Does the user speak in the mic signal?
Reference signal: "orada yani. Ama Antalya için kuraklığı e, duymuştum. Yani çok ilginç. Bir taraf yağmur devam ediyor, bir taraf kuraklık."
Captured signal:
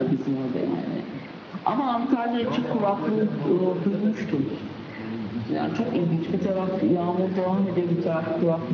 Yes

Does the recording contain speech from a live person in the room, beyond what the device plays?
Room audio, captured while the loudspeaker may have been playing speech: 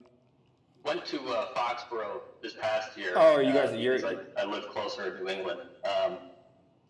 Yes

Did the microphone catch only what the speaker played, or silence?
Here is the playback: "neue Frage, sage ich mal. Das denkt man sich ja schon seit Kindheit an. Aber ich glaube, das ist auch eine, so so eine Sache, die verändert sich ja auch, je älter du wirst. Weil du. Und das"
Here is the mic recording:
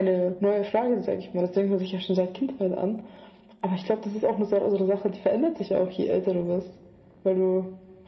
Yes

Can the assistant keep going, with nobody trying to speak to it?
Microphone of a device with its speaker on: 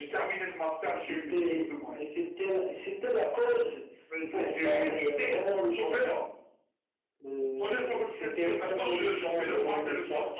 Yes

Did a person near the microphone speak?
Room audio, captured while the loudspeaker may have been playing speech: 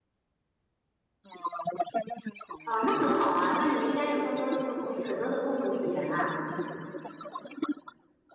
Yes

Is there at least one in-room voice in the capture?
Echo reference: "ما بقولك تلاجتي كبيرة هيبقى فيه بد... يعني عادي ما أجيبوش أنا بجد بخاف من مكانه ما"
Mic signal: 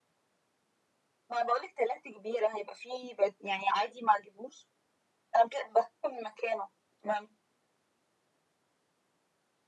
No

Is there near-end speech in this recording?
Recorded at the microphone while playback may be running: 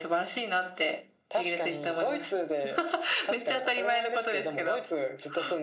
No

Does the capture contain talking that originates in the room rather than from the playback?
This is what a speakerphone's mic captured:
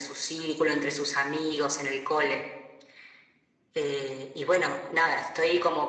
No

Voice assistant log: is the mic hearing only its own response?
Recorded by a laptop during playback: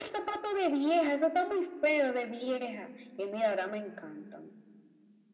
Yes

